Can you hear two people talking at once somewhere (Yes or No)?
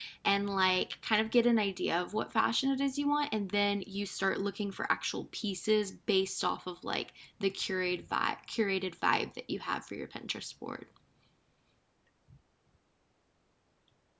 No